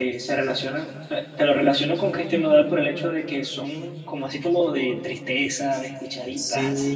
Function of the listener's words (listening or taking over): taking over